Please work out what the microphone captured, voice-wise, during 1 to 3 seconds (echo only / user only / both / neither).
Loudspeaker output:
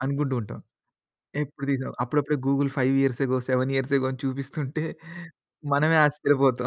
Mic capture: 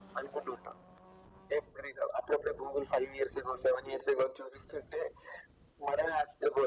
echo only